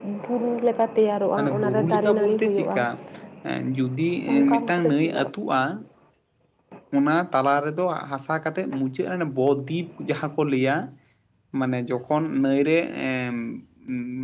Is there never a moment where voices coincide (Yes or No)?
No